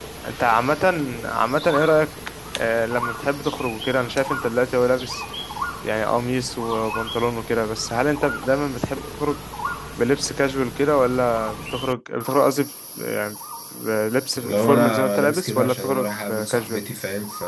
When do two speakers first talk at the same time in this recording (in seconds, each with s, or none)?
14.4 s